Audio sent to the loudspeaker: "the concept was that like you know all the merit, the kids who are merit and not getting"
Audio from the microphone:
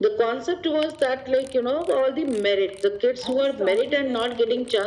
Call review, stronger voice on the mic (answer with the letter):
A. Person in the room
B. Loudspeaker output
B